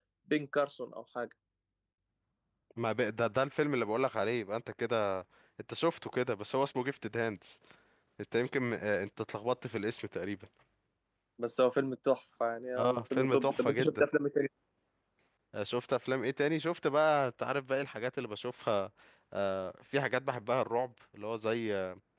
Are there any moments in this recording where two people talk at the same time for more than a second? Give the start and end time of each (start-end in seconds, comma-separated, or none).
12.8-14.0